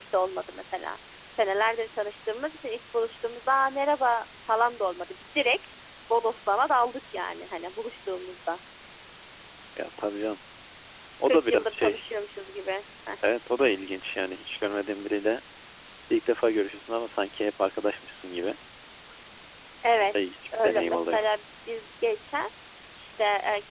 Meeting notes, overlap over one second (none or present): present